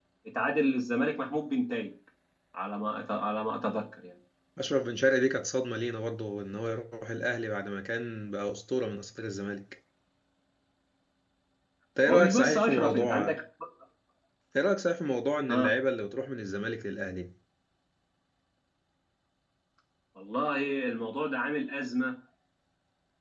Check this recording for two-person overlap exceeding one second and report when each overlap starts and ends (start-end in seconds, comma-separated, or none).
12.1-13.4